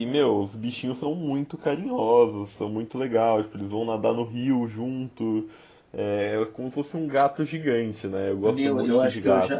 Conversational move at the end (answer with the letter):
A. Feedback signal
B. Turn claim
B